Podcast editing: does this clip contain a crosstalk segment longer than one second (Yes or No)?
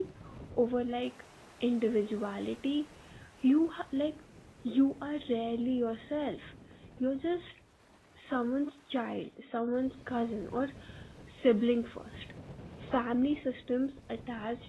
No